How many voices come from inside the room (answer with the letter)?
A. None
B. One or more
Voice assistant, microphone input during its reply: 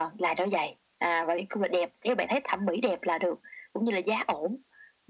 A